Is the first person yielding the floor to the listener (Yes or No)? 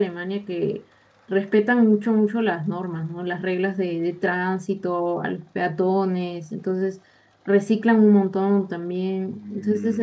No